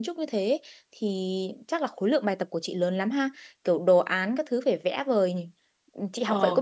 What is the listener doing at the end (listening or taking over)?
taking over